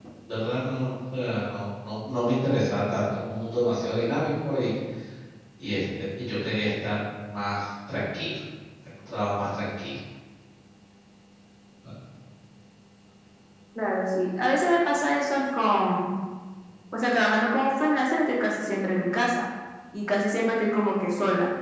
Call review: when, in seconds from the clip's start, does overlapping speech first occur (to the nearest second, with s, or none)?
none